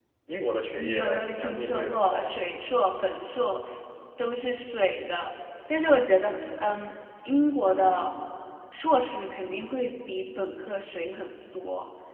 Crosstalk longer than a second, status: present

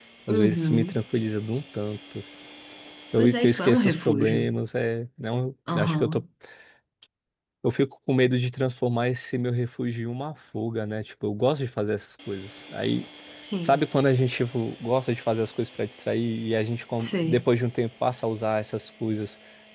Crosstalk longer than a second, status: present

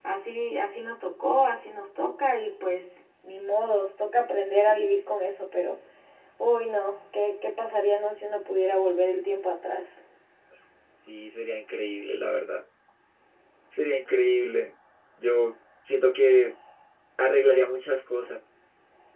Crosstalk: none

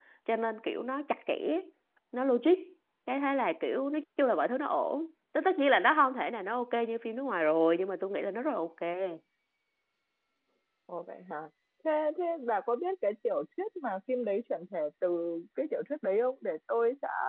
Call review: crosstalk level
none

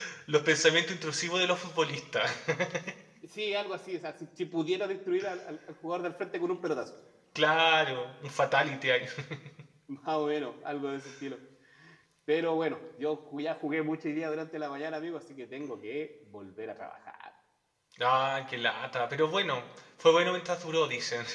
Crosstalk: none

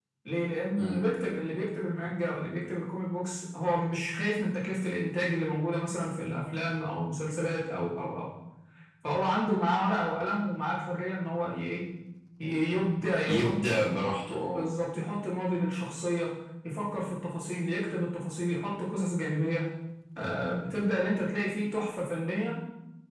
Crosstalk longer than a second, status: none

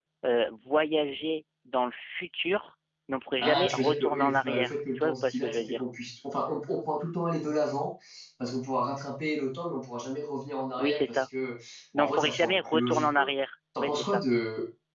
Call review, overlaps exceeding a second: present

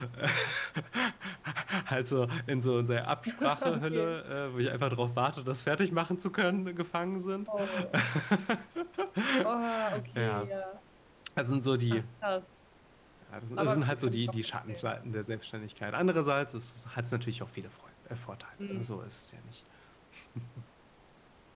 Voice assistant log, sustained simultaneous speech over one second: present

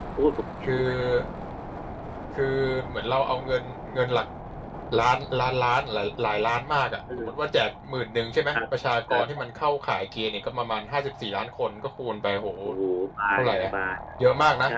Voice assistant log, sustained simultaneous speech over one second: none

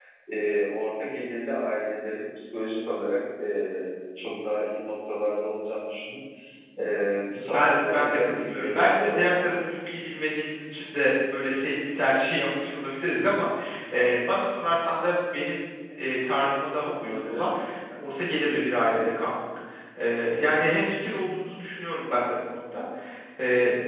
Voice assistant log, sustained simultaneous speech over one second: present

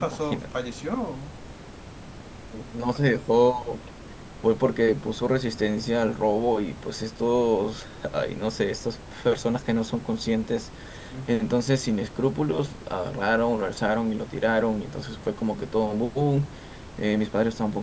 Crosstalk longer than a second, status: none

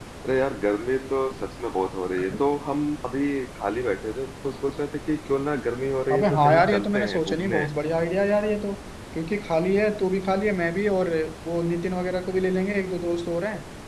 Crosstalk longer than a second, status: present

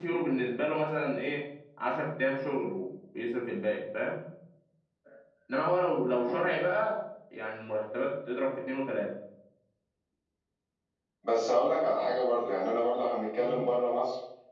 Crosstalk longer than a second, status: none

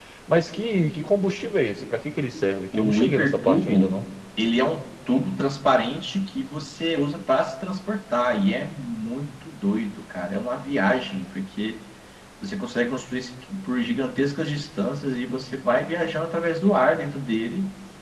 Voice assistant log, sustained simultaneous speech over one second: present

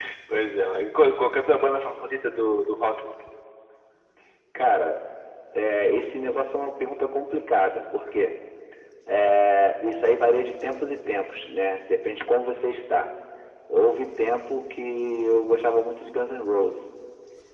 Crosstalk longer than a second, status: none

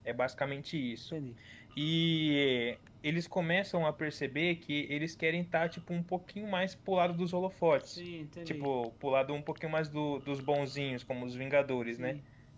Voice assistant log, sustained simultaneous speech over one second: none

